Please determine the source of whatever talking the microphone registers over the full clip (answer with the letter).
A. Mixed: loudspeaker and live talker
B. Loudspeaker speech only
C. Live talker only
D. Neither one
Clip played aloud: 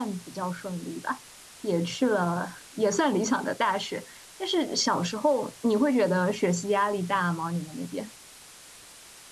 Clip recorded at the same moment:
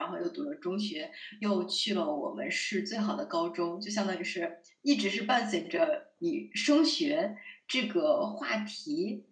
C